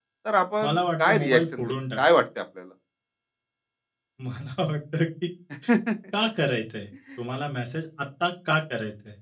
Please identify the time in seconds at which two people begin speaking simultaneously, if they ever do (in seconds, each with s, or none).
0.6 s